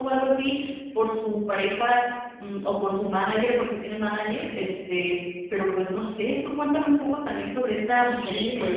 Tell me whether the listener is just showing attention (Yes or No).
No